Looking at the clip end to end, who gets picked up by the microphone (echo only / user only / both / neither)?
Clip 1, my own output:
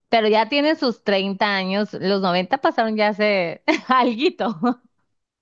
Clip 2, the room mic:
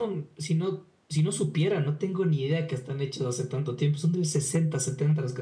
user only